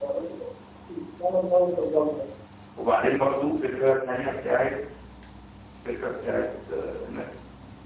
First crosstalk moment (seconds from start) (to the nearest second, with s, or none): none